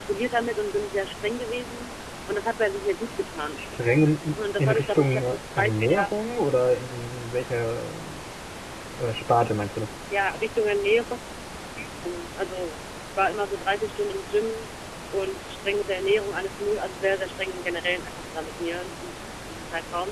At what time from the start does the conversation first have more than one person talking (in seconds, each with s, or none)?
4.6 s